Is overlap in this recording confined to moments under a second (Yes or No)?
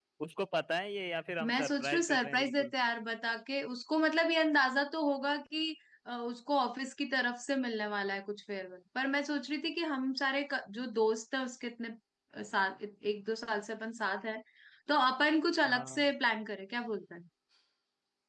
No